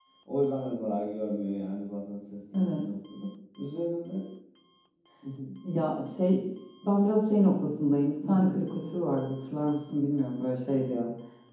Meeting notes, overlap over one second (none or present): none